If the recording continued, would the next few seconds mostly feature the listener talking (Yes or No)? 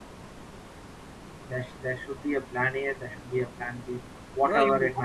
Yes